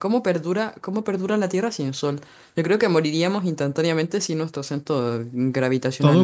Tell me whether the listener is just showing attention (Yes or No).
No